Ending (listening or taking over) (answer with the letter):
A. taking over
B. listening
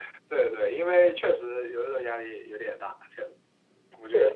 A